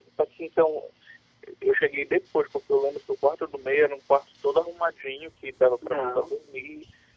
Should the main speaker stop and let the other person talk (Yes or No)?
No